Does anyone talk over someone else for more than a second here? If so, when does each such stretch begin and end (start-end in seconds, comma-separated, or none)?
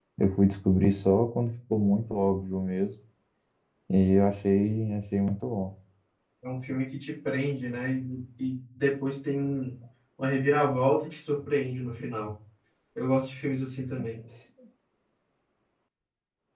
none